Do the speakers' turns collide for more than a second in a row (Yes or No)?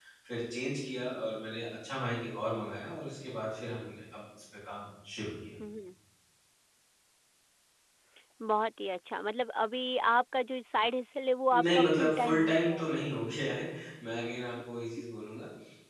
Yes